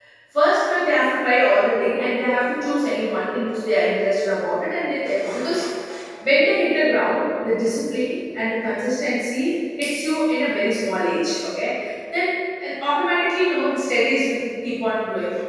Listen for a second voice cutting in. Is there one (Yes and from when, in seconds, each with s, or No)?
No